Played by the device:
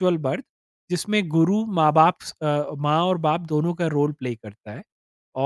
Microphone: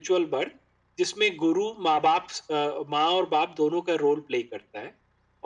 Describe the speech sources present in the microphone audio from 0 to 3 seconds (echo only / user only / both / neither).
echo only